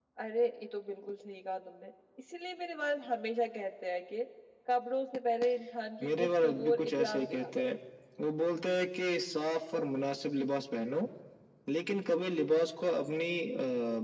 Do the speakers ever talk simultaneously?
Yes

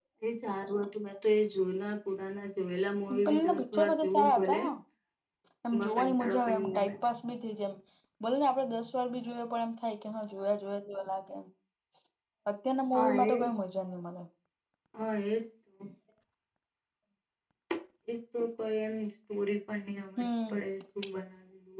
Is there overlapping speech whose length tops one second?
Yes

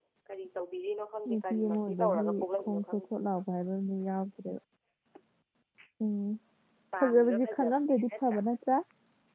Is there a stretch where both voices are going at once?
Yes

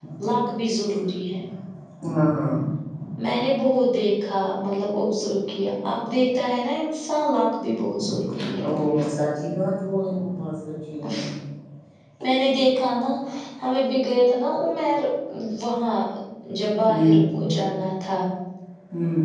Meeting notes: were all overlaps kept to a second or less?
Yes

